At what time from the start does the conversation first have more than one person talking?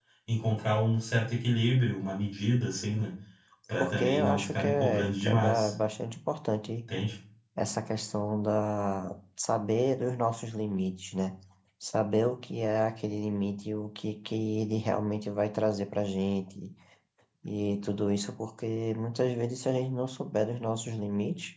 3.8 s

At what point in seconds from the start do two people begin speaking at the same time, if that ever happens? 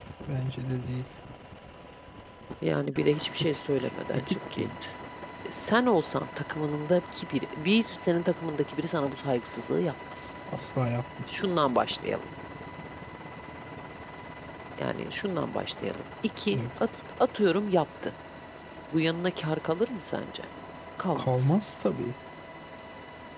3.4 s

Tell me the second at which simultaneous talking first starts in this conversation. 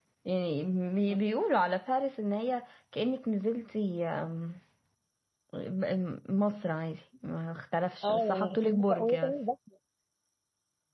8.0 s

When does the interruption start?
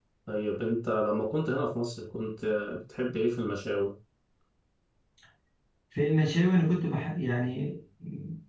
none

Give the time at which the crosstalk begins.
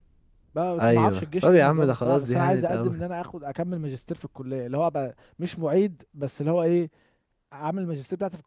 0.8 s

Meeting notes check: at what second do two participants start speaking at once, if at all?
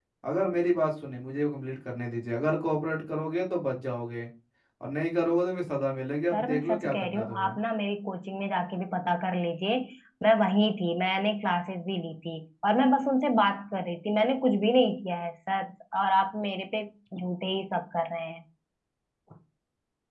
6.3 s

